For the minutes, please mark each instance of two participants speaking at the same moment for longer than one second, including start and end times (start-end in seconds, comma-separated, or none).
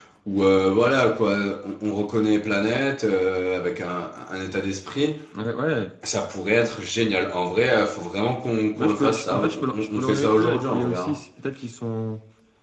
8.8-11.1